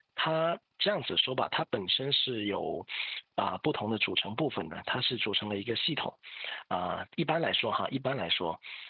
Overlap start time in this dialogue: none

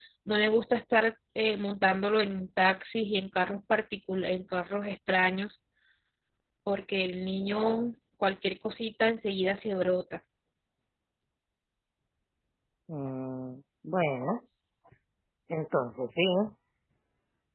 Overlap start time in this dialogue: none

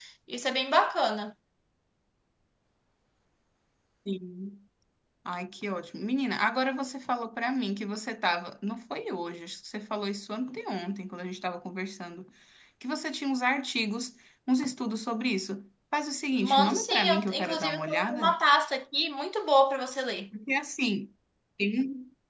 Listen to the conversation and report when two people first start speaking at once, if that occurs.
16 s

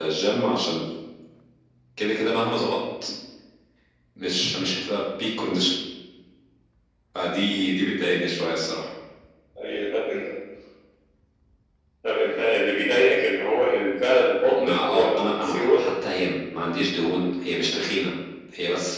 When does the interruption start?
15 s

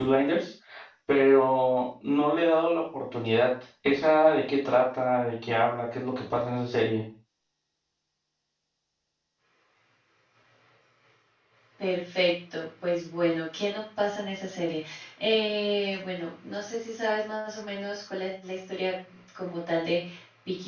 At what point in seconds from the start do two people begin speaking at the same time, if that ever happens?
none

